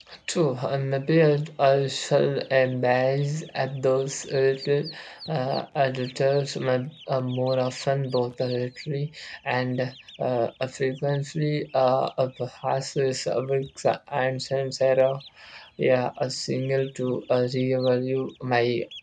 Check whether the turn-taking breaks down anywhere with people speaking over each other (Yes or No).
No